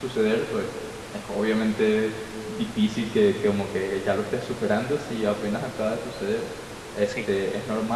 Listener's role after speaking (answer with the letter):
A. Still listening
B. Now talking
A